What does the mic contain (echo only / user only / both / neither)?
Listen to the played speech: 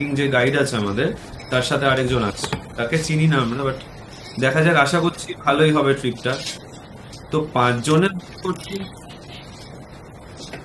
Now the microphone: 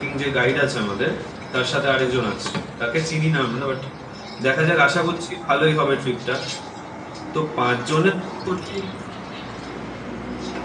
echo only